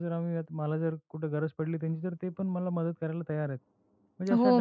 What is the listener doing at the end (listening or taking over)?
taking over